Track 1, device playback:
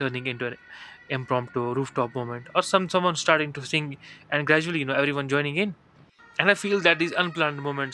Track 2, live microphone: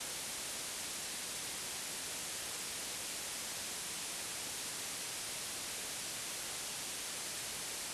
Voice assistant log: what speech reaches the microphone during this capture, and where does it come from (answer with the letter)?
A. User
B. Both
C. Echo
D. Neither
D